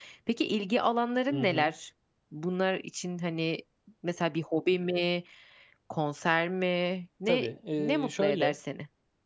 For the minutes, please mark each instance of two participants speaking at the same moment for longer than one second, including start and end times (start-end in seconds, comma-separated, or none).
7.3-8.6